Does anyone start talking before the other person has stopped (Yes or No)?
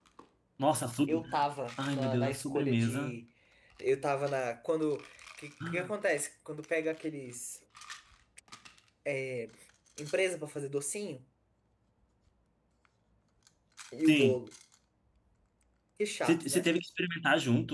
Yes